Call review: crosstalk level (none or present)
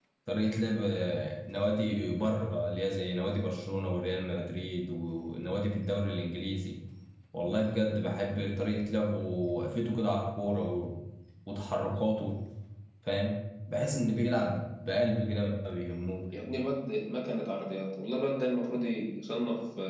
none